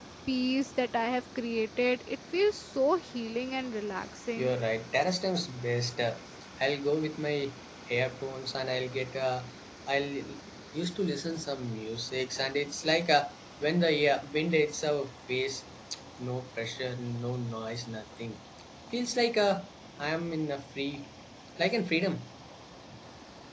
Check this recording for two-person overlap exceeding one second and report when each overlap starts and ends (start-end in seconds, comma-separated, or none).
none